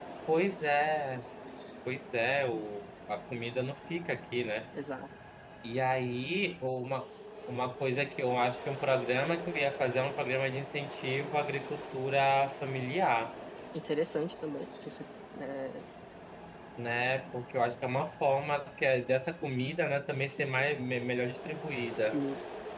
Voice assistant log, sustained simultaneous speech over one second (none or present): none